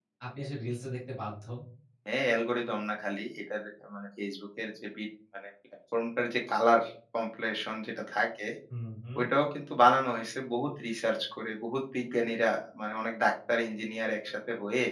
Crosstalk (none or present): none